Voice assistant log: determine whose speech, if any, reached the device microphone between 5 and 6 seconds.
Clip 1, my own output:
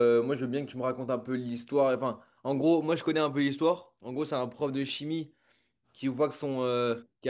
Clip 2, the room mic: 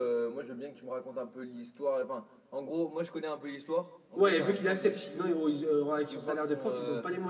both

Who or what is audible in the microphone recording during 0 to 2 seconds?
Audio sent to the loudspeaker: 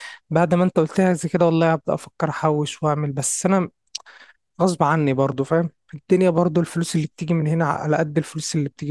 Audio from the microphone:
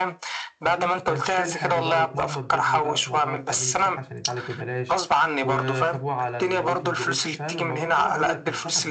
both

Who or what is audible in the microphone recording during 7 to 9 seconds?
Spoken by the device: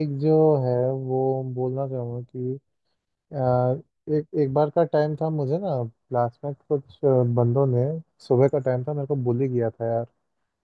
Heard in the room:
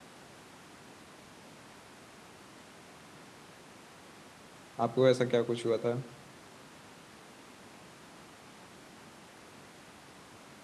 neither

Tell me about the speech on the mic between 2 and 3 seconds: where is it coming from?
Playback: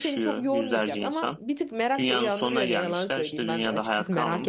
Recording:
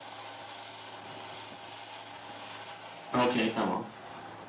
neither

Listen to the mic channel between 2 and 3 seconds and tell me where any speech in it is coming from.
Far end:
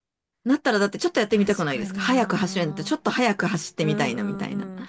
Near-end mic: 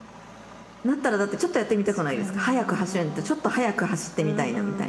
echo only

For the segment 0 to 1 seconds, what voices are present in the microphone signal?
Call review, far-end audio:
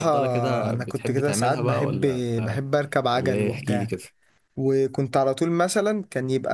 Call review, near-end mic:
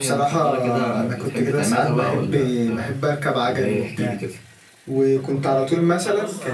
echo only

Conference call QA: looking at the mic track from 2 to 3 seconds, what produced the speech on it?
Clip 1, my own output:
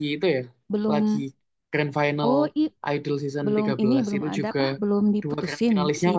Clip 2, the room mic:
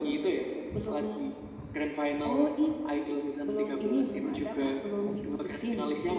echo only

